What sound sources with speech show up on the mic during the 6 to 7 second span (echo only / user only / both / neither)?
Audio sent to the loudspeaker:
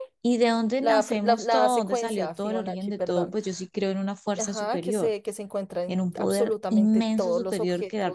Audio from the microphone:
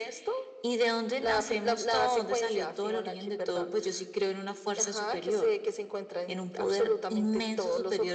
echo only